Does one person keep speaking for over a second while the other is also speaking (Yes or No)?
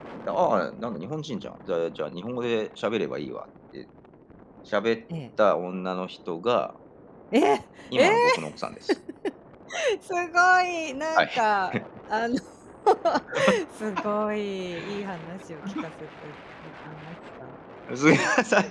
No